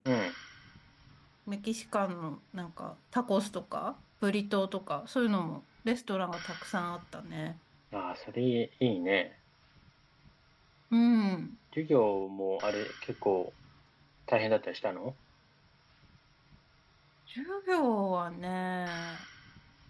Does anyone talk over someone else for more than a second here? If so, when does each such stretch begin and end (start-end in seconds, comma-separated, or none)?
none